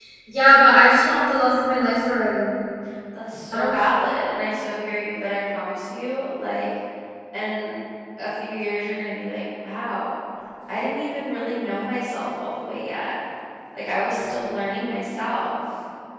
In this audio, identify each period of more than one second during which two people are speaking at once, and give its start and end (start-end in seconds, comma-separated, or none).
none